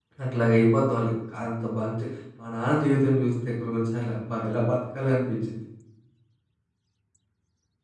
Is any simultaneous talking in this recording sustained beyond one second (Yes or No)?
No